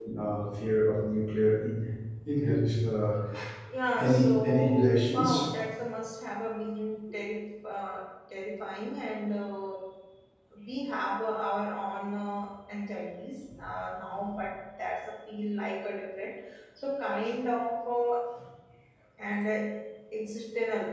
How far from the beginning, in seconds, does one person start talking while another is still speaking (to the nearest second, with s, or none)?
4 s